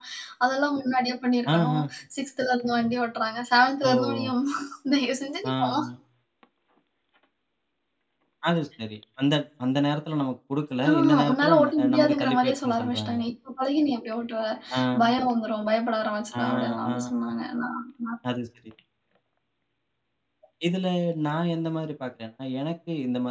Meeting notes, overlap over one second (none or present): present